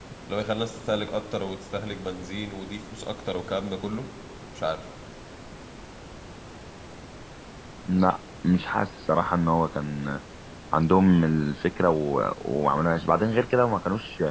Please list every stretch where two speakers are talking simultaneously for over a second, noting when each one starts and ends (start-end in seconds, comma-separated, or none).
none